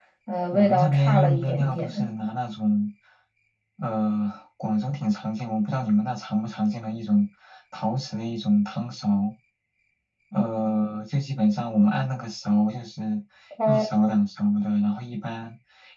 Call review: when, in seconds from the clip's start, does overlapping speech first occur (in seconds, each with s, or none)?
0.5 s